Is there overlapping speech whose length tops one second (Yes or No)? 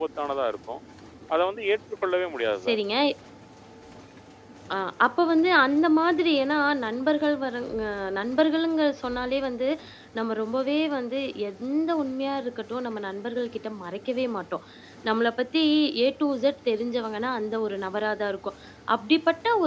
No